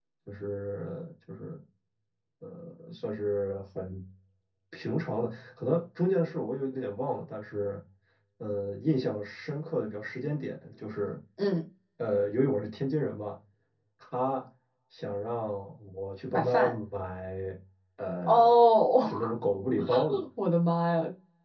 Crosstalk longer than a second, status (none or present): none